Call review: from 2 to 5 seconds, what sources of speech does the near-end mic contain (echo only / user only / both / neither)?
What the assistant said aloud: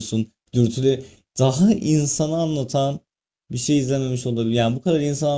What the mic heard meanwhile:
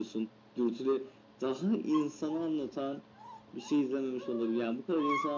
echo only